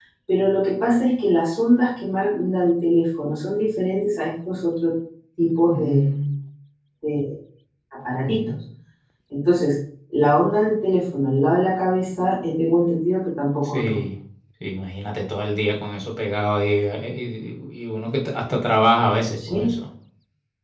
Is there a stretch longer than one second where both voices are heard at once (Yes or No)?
No